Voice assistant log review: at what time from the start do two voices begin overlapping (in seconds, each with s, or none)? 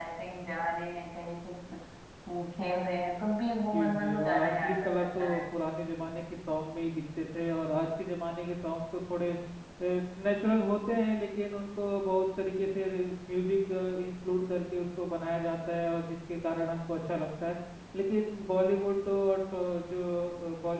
3.7 s